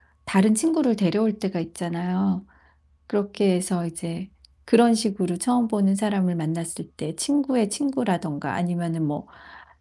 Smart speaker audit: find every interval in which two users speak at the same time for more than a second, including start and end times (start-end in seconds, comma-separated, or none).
none